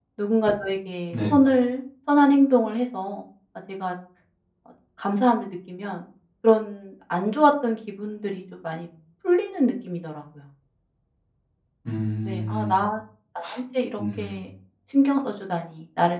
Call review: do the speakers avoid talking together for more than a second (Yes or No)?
Yes